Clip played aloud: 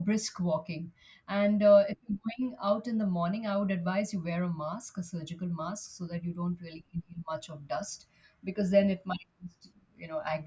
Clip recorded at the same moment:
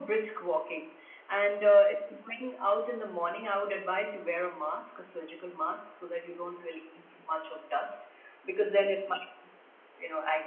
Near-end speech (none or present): none